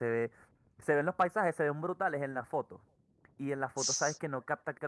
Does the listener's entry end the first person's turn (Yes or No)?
No